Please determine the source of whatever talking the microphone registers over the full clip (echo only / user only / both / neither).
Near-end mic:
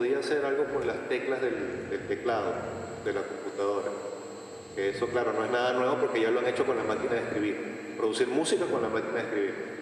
echo only